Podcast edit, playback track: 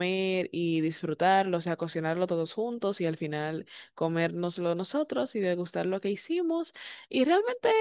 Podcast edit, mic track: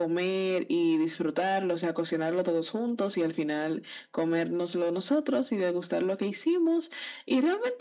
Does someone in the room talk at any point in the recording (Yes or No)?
No